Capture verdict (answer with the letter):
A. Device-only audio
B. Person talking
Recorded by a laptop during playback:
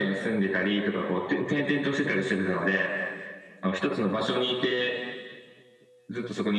A